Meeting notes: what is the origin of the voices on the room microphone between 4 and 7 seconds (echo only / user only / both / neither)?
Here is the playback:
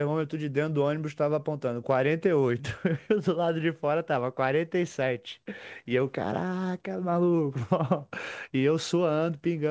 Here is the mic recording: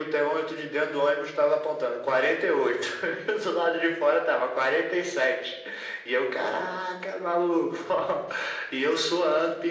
echo only